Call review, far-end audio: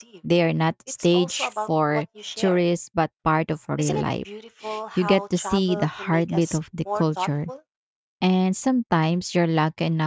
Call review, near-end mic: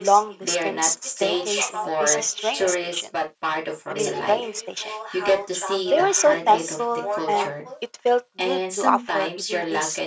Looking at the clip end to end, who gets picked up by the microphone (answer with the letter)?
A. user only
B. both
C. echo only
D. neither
B